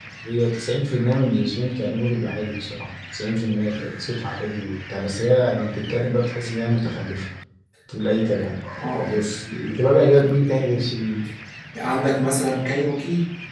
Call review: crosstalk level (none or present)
none